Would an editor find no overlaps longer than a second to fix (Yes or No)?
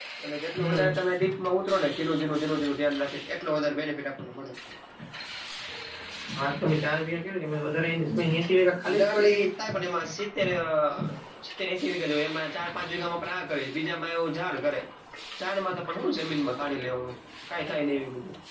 Yes